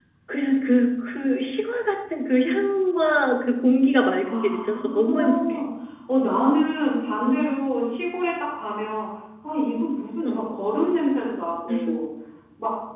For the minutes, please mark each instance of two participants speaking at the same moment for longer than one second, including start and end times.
4.2-5.6

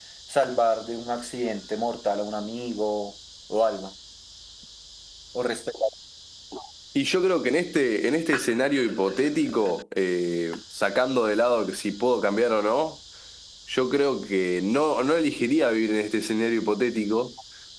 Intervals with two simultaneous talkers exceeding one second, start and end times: none

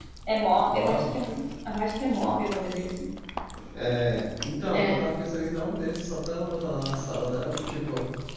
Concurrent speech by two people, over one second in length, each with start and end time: none

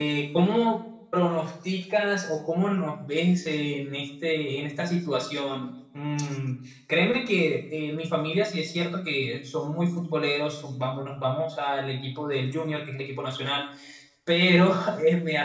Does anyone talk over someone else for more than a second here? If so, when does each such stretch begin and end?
none

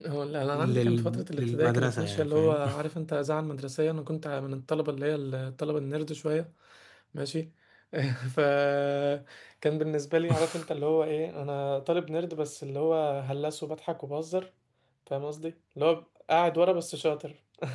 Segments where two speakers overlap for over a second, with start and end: 0.5-2.6

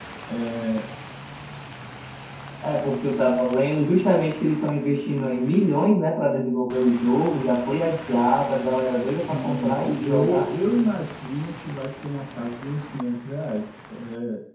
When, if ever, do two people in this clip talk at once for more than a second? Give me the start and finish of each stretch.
9.2-10.5

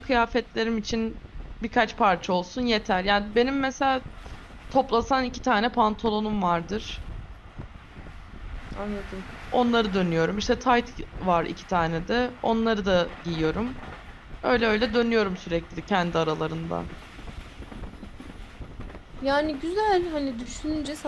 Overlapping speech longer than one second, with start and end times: none

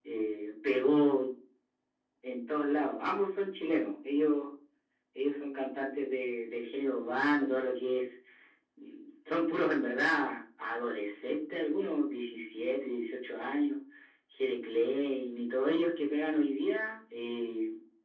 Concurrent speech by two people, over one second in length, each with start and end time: none

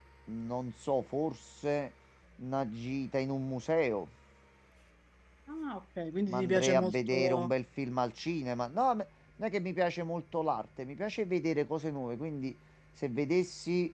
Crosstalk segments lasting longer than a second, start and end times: 6.3-7.5

